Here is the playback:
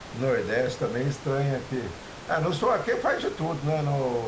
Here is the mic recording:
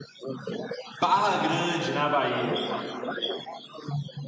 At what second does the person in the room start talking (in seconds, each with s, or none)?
1.0 s